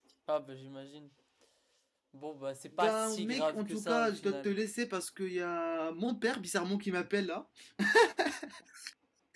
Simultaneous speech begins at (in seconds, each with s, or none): 2.8 s